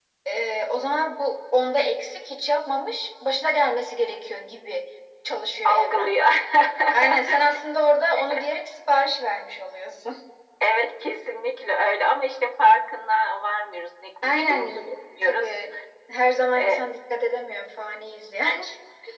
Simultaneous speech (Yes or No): Yes